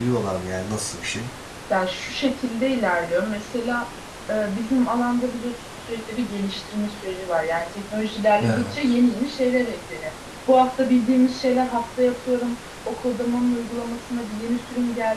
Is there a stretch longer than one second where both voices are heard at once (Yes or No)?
No